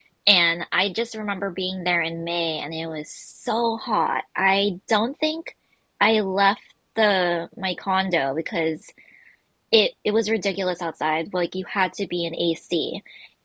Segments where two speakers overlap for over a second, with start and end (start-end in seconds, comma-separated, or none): none